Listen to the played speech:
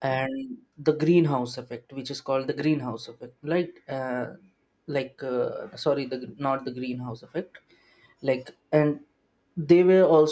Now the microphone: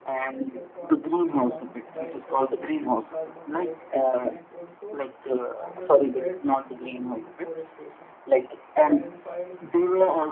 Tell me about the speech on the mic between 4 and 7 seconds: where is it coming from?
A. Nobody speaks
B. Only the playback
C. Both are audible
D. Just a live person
C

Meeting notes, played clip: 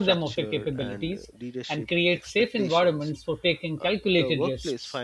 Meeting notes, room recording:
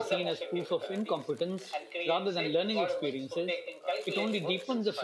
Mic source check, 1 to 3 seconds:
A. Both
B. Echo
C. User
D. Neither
A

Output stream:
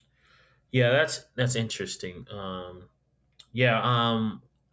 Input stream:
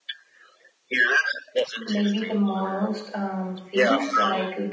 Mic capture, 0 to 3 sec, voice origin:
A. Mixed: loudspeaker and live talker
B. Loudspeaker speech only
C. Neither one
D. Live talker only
A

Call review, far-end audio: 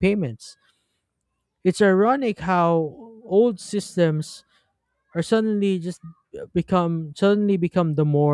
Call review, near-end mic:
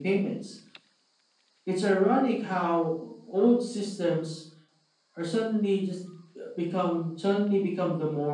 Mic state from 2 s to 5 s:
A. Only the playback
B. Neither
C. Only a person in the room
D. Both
A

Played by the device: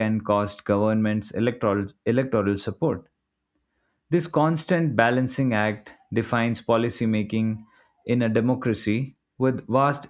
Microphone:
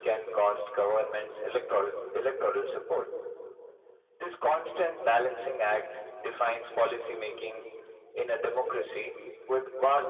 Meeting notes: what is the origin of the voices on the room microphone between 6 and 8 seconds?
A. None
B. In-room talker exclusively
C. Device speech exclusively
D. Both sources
C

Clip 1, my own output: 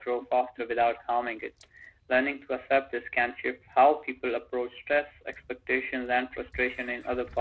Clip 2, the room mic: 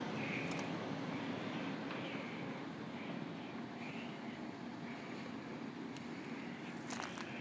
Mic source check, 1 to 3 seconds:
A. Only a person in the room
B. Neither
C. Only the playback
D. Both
B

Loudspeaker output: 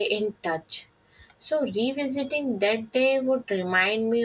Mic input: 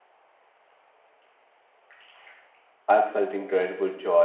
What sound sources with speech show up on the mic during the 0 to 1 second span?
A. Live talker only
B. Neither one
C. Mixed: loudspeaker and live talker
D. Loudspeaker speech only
B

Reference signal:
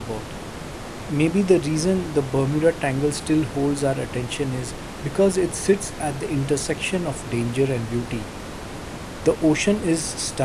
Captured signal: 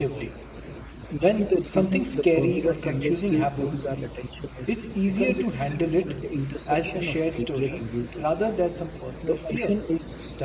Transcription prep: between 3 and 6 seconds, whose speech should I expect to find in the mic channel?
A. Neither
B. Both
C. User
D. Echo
B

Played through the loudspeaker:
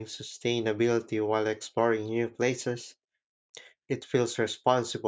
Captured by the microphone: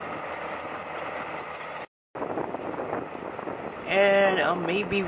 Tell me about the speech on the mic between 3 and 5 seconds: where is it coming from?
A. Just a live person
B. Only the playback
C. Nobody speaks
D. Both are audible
A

